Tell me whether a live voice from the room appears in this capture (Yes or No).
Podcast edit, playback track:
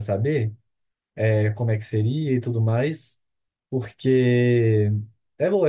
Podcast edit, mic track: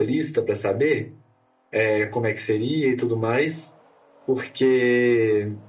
No